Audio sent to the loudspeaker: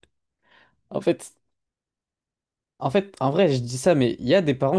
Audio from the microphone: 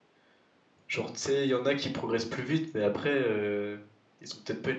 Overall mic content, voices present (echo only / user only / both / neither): user only